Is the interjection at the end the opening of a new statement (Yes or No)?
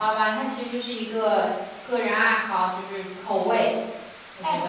Yes